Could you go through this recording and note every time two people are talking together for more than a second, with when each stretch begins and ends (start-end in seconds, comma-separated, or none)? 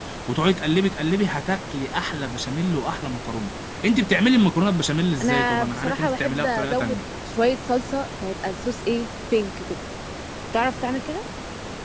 5.2-7.0